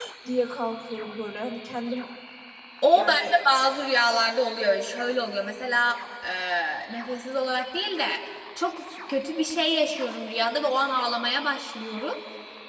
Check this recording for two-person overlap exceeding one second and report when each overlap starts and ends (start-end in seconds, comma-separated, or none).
none